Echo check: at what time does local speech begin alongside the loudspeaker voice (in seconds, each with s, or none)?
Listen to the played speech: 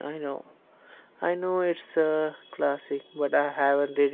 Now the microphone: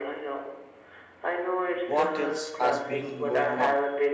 1.9 s